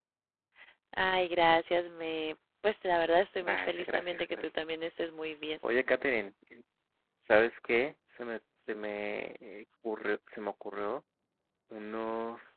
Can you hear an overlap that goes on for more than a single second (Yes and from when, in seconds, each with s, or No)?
Yes, from 3.4 s